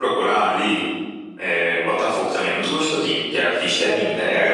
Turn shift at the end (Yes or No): No